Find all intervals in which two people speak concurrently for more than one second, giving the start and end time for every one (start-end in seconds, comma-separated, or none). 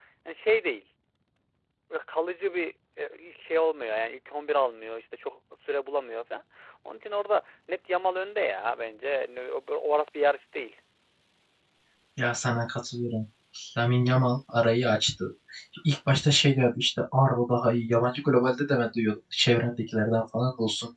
none